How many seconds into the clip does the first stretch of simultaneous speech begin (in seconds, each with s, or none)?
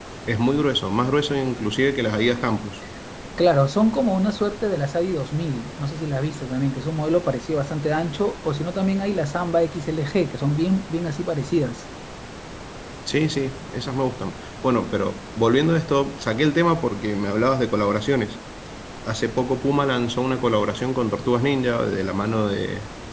none